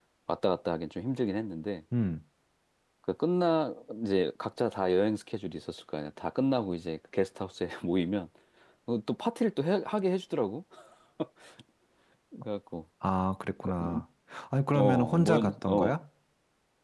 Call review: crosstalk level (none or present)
present